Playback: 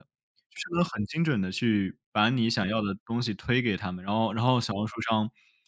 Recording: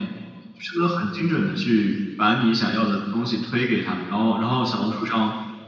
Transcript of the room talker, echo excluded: none

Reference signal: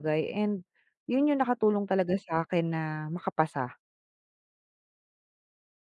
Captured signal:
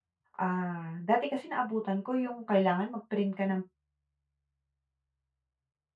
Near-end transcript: ah, dati kasi naabutan ko yung kailangan mag-print ka ng

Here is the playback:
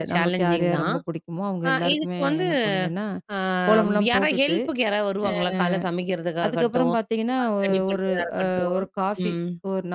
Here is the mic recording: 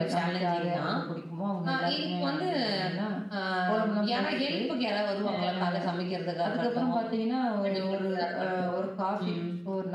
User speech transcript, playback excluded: none

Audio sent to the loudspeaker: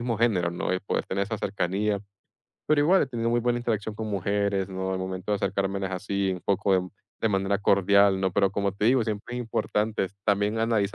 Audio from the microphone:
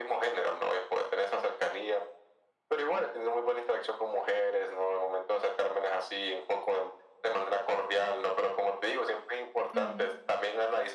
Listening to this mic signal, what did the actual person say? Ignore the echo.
Ujú.

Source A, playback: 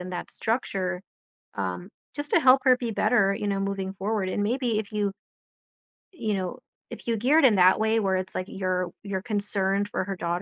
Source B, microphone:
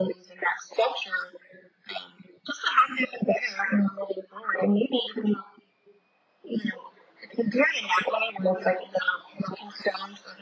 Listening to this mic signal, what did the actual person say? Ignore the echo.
none

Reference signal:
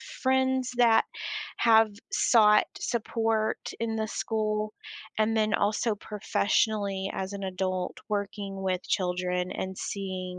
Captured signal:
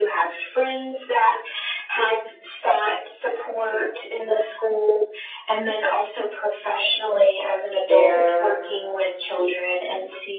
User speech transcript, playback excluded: there

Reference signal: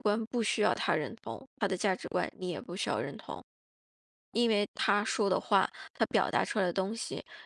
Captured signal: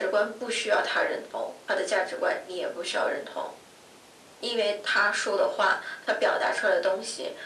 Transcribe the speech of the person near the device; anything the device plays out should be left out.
none

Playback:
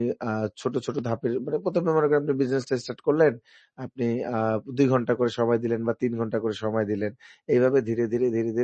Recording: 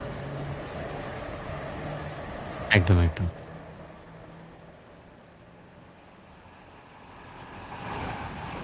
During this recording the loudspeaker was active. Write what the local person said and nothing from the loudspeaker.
একদম, একদম।

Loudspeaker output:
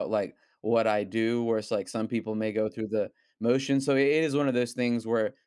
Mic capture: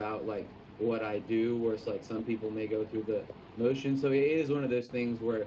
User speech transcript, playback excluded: none

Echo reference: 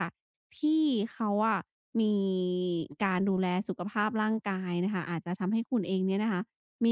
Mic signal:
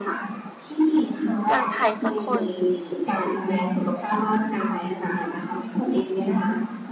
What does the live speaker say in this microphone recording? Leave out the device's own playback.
เจอใครสักคน

